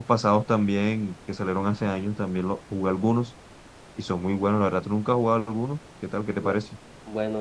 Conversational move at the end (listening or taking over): taking over